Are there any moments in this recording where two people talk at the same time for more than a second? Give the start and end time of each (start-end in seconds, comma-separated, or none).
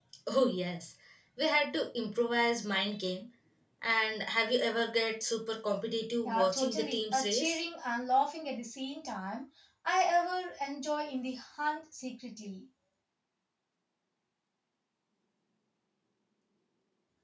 6.2-7.6